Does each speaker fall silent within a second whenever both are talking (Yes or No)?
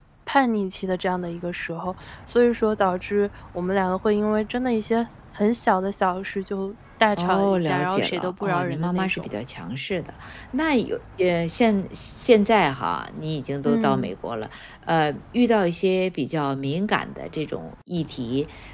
No